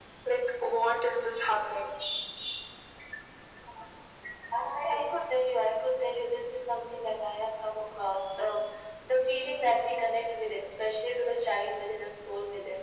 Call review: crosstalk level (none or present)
none